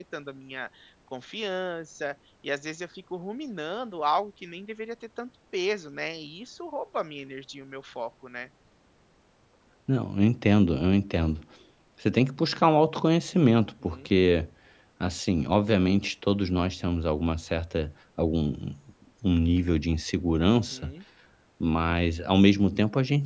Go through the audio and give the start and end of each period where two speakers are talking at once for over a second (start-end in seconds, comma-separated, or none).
none